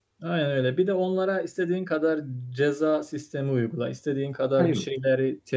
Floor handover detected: No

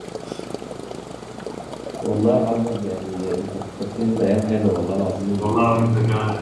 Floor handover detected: Yes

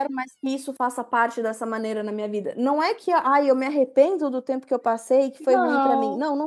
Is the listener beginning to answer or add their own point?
No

